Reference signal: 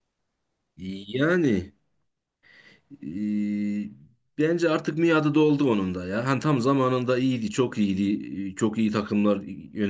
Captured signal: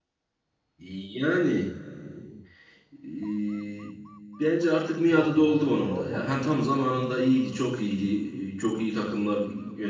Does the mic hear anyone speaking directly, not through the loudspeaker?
Yes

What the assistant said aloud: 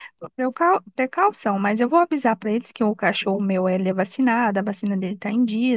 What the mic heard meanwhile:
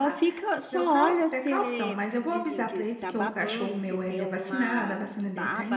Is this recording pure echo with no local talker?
No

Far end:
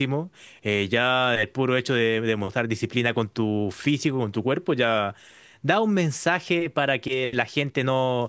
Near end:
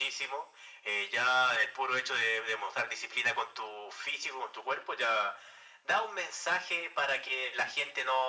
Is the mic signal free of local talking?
Yes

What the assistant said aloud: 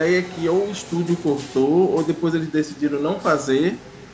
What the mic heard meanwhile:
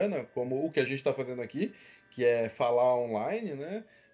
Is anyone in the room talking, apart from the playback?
Yes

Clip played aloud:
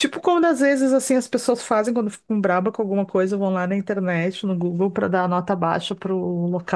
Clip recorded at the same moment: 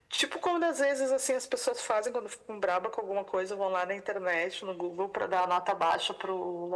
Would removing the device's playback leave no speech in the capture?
Yes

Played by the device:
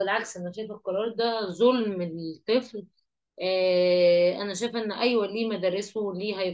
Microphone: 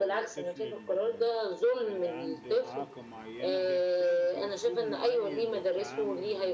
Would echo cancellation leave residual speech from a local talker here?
Yes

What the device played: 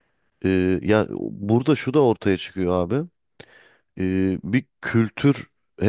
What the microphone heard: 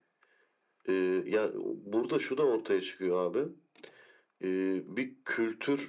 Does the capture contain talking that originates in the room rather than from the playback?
No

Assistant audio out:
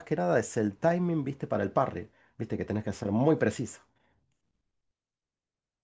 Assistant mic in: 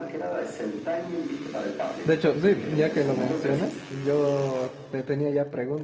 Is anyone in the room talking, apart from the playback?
Yes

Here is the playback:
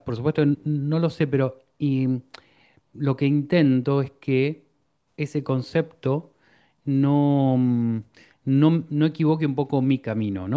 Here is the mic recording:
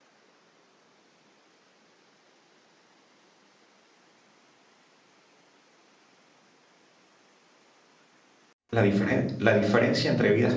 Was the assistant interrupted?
Yes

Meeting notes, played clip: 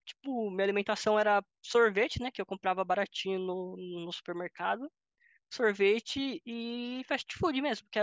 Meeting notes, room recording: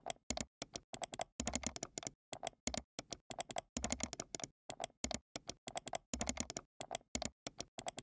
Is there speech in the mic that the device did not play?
No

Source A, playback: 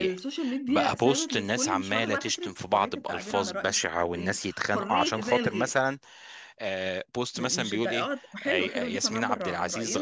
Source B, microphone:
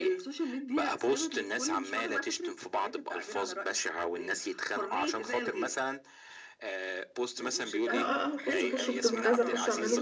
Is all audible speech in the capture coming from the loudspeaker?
No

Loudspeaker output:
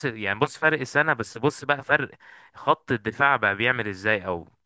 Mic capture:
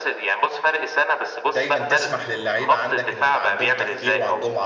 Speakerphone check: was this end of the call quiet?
No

